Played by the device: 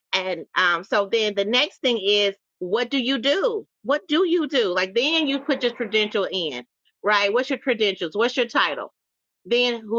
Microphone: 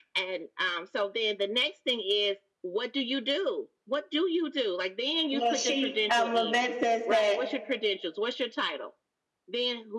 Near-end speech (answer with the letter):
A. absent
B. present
B